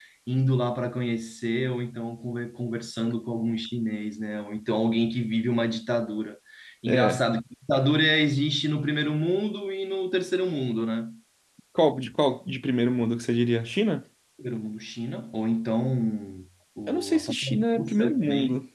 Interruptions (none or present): present